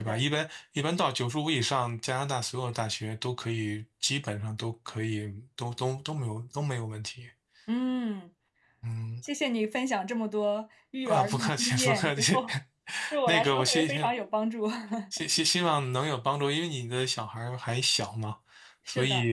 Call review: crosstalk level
present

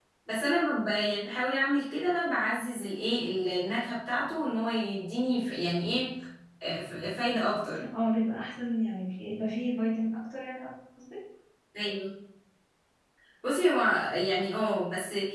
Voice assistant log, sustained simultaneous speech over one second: none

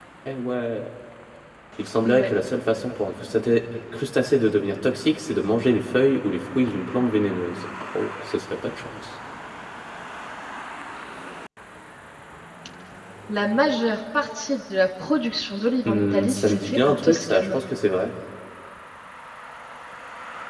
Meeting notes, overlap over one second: present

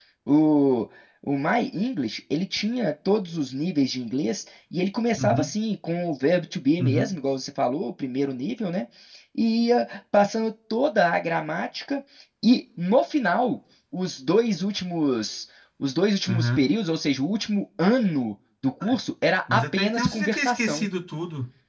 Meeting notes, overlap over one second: present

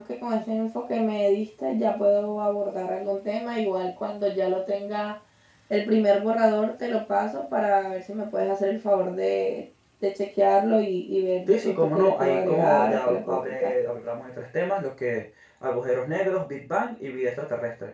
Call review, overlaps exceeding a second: present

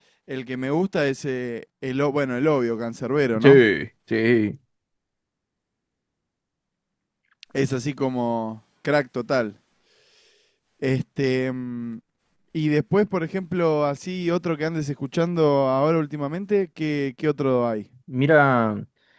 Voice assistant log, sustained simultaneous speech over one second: none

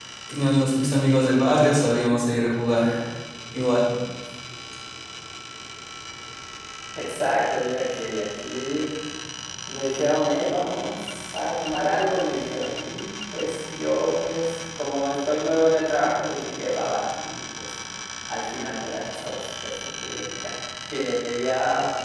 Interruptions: none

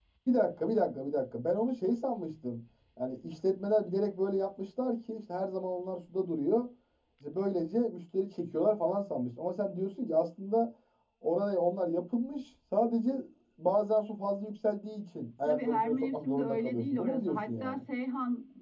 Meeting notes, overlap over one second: present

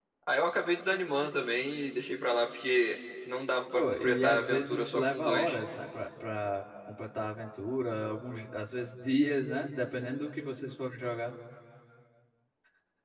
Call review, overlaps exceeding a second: present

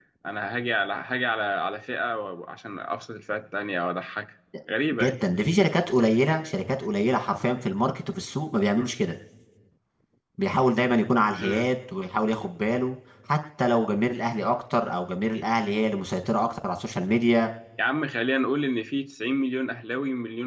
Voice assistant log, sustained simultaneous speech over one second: none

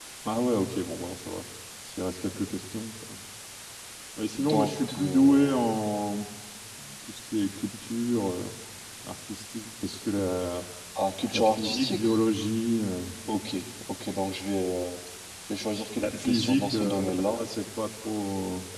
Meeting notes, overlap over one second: present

